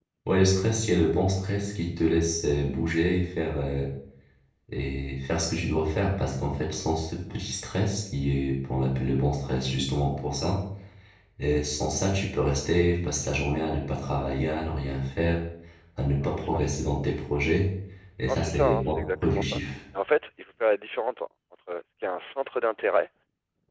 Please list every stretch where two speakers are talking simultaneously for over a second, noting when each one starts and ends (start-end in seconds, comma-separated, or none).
18.3-19.6